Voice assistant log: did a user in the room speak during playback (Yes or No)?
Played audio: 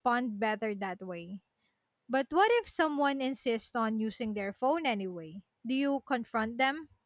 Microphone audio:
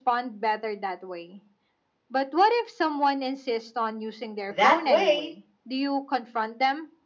Yes